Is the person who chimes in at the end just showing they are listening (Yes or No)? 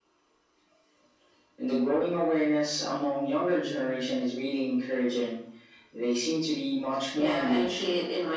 No